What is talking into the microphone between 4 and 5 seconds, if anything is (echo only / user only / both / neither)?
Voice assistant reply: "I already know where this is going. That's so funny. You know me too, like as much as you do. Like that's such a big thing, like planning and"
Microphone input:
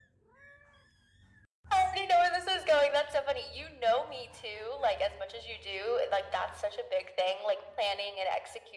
echo only